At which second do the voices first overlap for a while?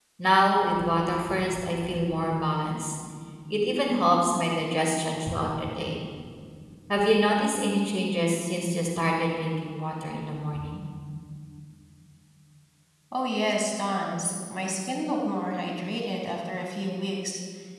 none

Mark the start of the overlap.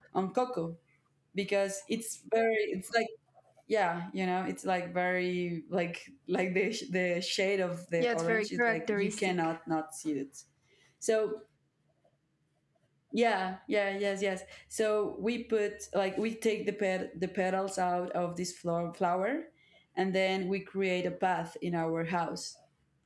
8.0 s

